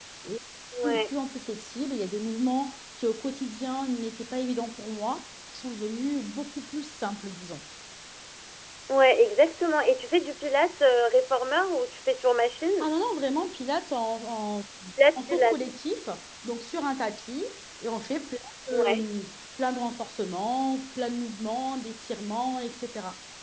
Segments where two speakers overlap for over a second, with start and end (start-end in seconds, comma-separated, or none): none